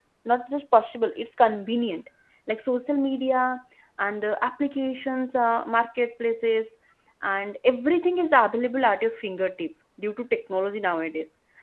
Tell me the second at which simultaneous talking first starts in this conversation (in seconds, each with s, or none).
none